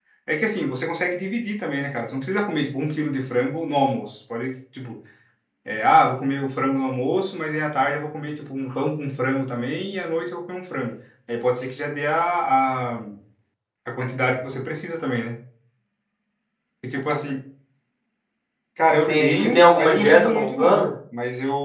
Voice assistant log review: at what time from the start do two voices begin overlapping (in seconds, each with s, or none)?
18.9 s